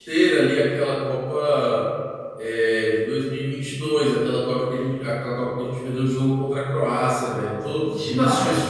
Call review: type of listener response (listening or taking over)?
taking over